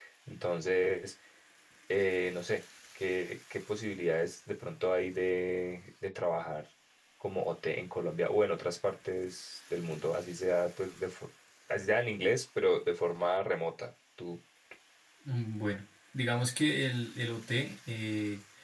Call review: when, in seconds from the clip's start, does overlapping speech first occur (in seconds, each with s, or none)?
none